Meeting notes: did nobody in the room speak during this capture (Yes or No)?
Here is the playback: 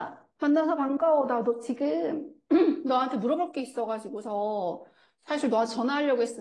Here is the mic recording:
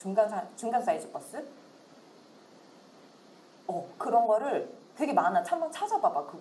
No